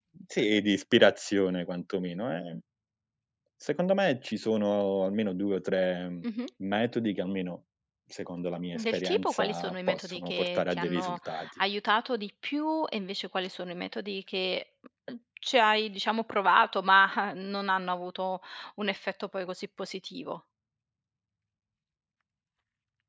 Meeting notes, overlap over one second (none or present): present